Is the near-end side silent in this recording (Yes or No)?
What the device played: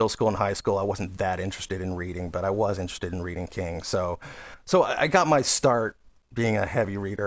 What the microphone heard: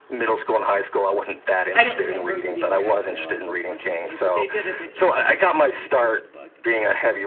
No